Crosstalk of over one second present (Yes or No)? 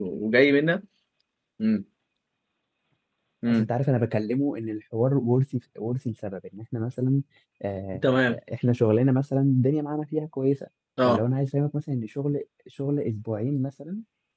No